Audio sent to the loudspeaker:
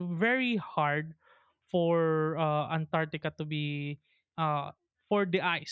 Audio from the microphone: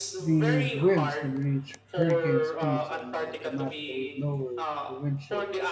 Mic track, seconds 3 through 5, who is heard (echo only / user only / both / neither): both